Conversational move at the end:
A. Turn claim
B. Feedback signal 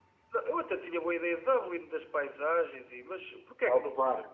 A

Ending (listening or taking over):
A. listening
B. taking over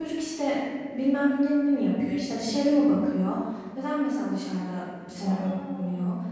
A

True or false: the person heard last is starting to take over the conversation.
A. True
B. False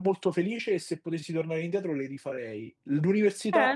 A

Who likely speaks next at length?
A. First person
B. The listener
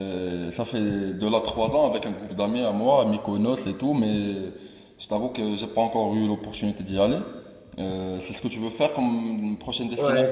B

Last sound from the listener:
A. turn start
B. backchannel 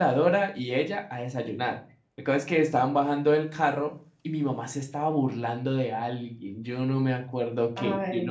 B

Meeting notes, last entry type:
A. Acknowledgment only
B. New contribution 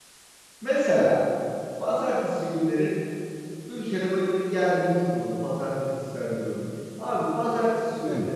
A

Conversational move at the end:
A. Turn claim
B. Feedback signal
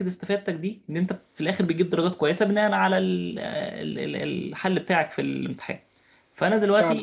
B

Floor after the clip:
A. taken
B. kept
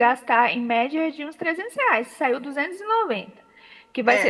B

